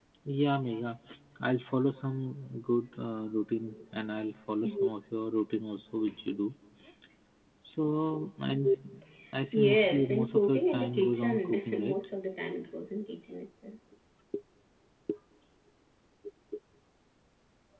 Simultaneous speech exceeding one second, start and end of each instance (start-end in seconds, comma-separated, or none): 9.5-12.0